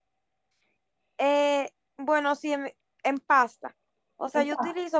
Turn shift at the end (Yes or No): No